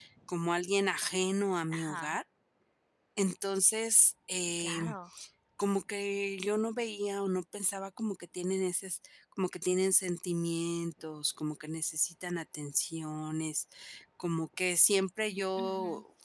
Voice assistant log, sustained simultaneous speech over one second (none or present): none